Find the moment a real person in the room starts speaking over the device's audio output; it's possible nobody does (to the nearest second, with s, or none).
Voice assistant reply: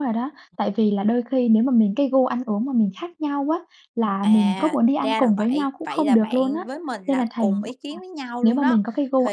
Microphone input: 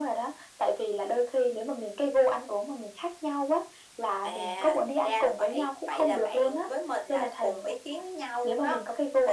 none